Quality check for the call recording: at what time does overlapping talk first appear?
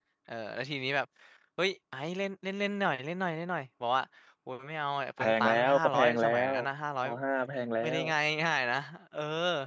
5.2 s

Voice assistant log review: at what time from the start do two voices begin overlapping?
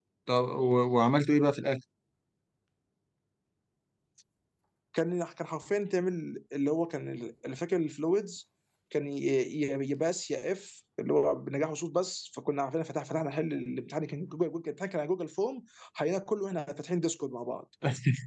none

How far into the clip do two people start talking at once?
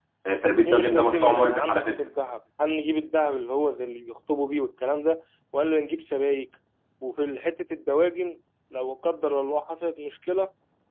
0.6 s

